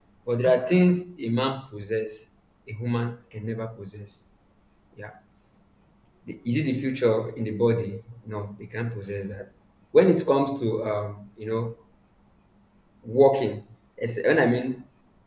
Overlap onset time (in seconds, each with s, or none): none